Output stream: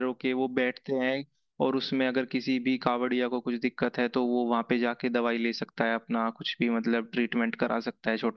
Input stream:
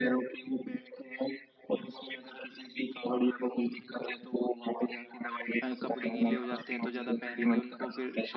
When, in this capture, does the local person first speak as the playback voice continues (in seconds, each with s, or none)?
5.6 s